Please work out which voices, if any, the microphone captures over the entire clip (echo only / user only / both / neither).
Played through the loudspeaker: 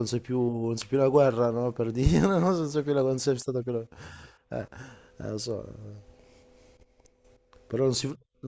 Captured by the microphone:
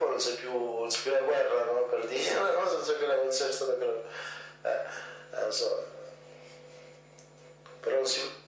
echo only